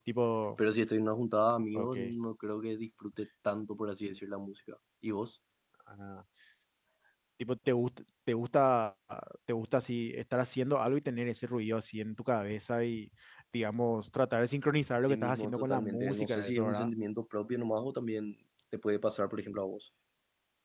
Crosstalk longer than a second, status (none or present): present